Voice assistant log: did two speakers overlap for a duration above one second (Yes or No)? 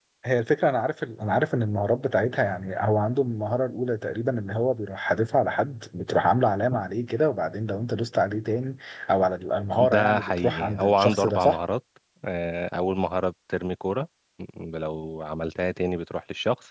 Yes